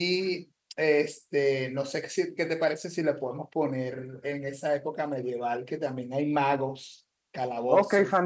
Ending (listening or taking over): taking over